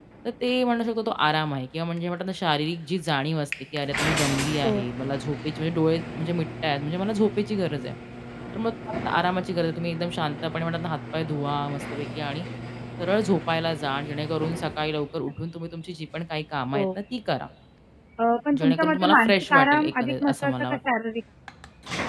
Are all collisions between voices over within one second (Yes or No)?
No